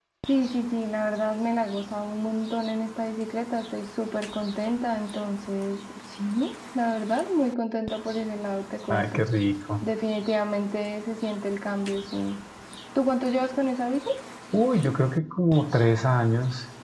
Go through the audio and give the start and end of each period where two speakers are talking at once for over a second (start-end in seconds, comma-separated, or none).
none